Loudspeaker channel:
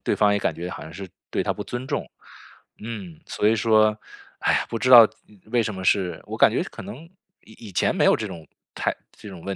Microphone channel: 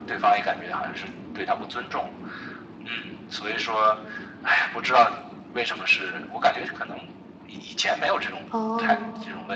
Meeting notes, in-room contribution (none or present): present